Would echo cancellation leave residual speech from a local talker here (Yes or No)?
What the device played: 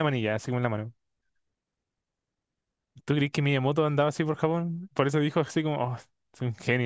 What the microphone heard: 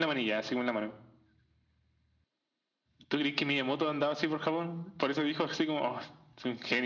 No